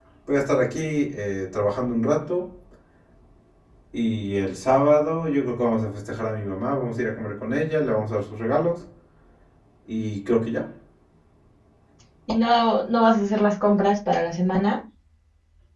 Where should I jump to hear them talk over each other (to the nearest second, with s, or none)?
none